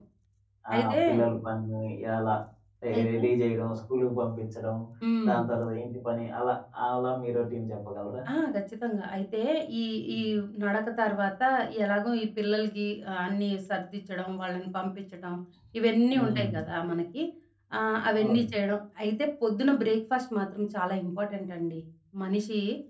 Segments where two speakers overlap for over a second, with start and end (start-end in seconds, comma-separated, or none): none